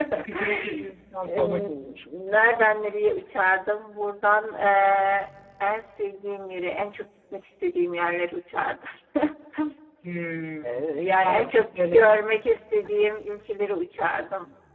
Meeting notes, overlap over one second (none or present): present